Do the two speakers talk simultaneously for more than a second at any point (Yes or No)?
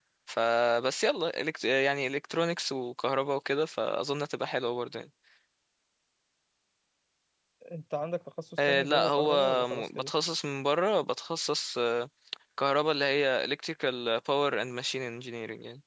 Yes